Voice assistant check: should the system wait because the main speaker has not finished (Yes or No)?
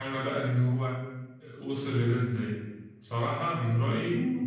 Yes